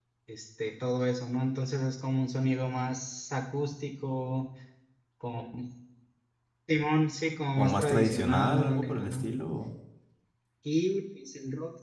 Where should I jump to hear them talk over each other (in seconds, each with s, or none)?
7.6 s